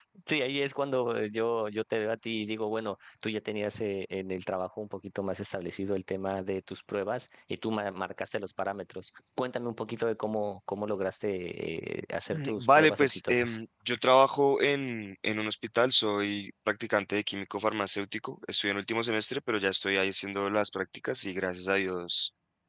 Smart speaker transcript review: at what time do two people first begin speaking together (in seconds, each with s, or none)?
12.3 s